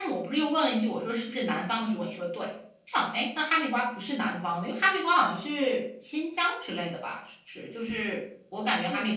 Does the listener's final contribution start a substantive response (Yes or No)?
Yes